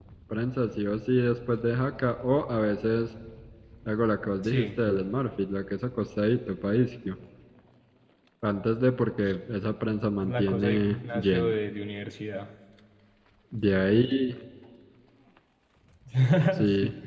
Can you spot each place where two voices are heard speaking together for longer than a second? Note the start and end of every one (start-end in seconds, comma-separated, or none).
10.2-11.6